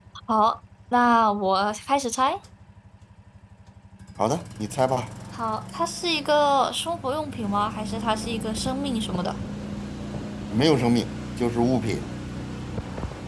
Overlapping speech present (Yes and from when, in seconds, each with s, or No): No